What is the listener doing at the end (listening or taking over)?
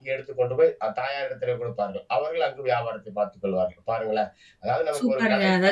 taking over